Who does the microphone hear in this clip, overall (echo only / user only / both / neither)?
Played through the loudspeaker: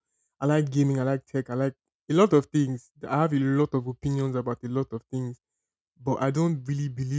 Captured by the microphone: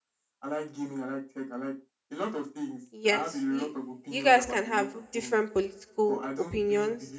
both